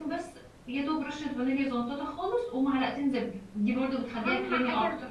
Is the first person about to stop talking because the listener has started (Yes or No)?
Yes